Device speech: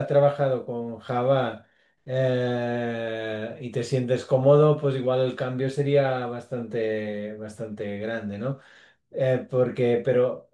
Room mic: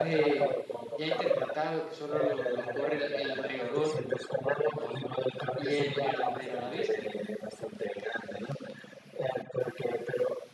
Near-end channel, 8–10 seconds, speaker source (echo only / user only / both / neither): echo only